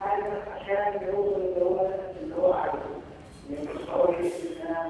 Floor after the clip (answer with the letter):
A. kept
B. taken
A